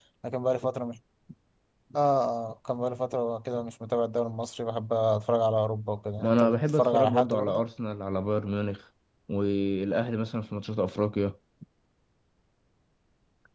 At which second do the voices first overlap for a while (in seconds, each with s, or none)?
6.2 s